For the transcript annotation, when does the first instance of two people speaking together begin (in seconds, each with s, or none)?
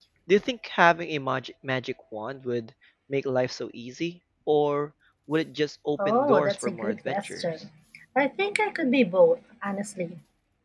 6.0 s